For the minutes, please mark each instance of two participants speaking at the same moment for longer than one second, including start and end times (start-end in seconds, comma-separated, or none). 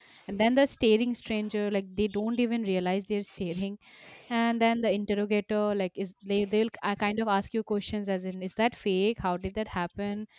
none